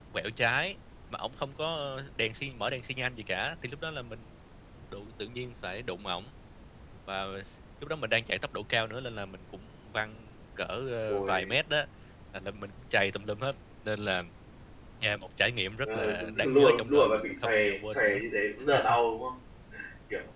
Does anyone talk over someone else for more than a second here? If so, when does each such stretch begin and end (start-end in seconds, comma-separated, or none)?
15.8-18.2